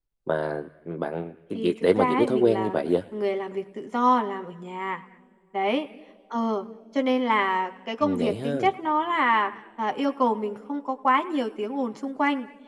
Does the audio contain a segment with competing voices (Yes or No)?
Yes